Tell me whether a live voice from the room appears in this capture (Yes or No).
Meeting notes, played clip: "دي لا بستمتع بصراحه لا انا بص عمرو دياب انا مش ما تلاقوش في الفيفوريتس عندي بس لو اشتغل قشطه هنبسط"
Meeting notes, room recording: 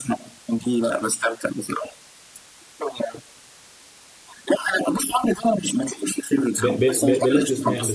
Yes